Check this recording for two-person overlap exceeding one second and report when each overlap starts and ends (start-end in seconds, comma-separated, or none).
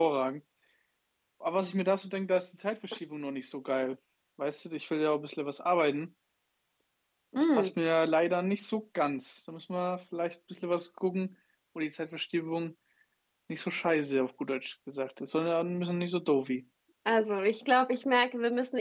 none